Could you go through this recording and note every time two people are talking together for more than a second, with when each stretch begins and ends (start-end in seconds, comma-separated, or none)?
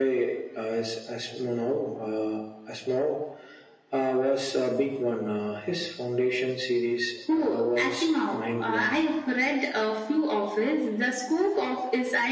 7.3-9.0